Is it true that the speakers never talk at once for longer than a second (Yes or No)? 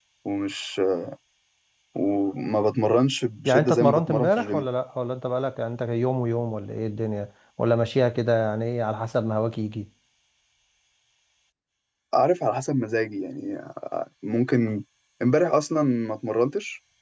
No